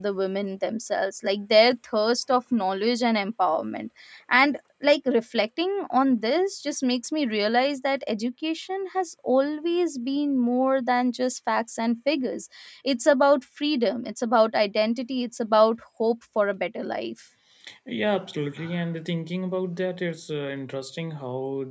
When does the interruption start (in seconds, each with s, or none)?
none